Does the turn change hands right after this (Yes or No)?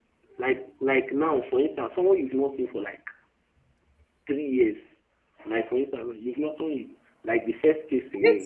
Yes